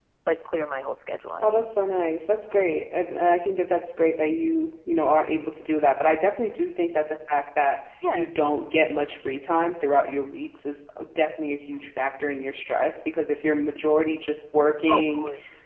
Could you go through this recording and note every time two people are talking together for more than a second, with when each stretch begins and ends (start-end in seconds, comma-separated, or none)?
none